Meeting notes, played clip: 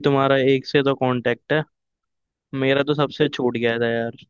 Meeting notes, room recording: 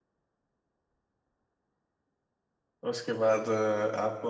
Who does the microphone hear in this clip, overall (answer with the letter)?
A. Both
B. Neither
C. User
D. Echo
C